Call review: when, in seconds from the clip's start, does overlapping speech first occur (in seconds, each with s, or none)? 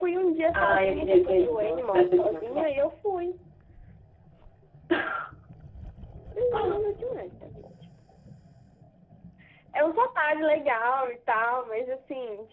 0.5 s